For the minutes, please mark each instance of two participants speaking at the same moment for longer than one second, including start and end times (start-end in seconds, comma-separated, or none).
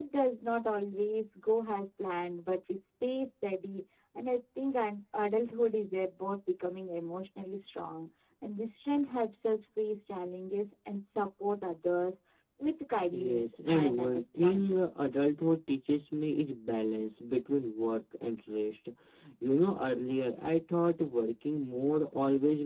13.1-14.8